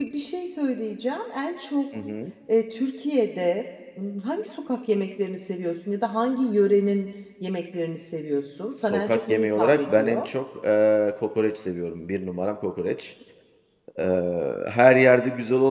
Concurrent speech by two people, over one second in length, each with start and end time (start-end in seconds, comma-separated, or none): 8.9-10.3